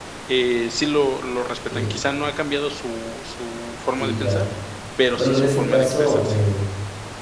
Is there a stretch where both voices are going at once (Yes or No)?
Yes